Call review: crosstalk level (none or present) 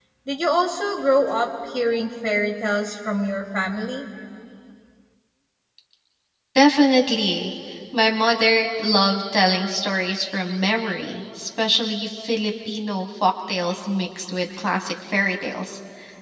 none